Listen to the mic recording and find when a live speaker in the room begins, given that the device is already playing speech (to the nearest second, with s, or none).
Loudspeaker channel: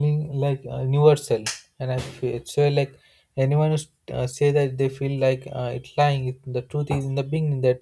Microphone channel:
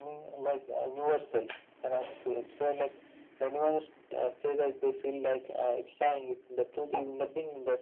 none